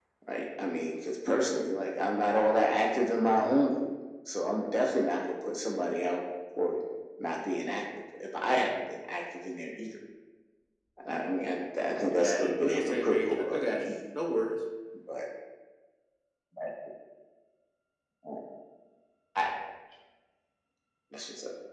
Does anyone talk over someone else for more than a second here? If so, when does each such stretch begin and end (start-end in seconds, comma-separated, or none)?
12.2-13.9